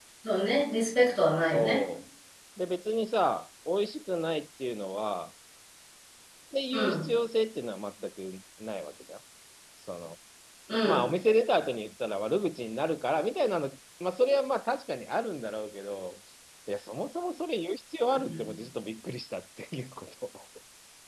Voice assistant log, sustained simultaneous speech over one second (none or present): none